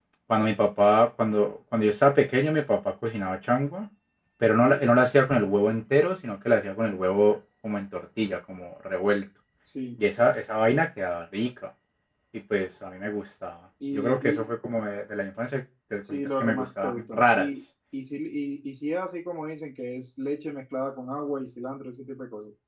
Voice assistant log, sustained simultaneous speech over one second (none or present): present